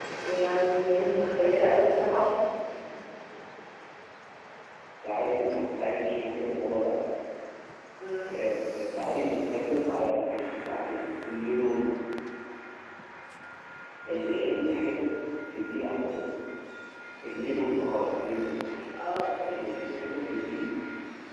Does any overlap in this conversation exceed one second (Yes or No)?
No